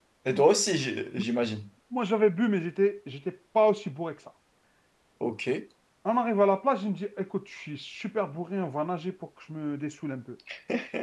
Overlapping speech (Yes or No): No